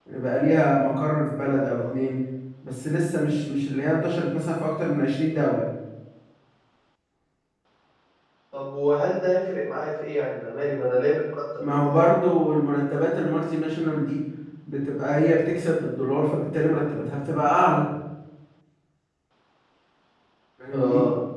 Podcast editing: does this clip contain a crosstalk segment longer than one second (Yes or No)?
No